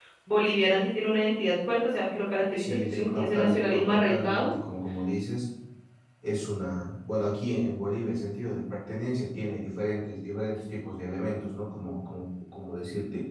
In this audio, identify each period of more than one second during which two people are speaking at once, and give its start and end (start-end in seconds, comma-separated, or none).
2.6-4.5